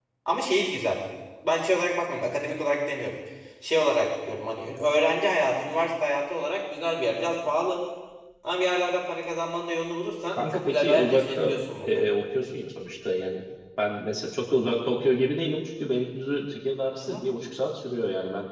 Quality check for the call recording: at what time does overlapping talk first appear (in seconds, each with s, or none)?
10.3 s